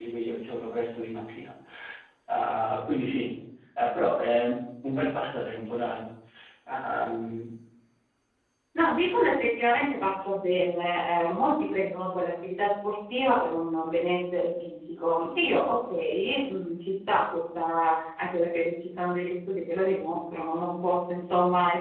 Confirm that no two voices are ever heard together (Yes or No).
Yes